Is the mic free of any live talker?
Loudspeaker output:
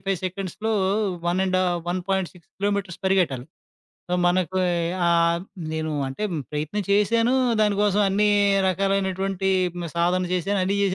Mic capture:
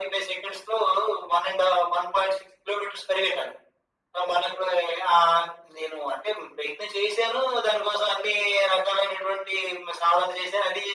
Yes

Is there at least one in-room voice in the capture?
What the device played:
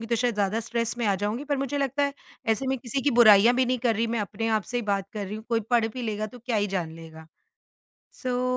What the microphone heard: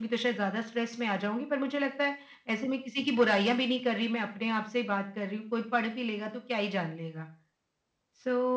No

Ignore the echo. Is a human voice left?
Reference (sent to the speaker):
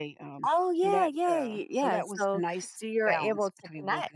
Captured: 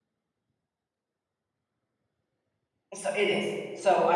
Yes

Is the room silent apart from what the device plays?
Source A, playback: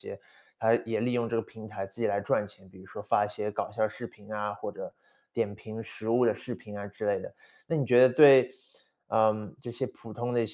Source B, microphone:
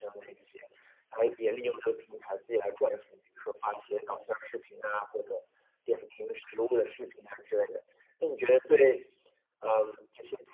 Yes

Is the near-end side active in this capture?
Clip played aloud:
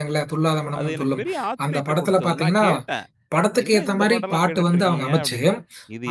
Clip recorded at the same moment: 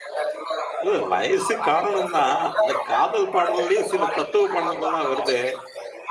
Yes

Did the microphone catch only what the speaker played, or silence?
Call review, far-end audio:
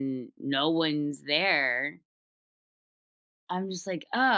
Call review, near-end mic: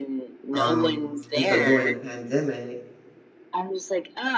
No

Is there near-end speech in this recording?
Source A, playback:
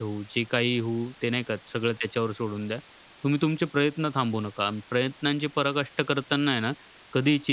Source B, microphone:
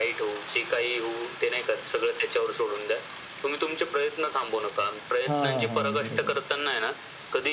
Yes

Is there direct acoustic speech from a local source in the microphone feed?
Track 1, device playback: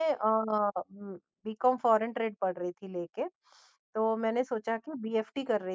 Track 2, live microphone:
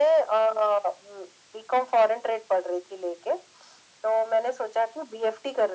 No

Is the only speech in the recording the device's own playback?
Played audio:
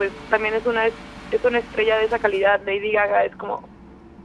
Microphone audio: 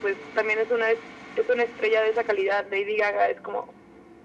Yes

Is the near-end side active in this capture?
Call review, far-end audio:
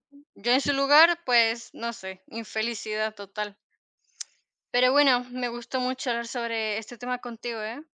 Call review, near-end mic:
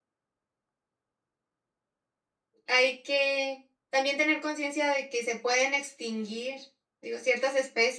Yes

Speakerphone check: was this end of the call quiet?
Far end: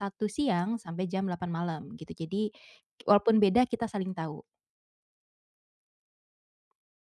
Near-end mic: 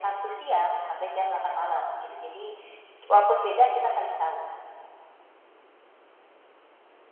Yes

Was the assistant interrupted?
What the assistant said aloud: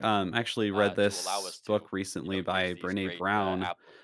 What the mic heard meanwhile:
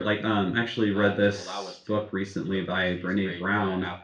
No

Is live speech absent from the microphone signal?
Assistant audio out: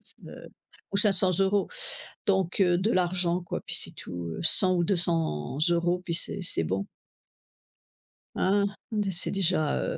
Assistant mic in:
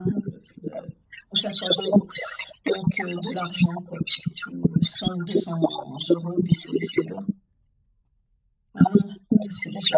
Yes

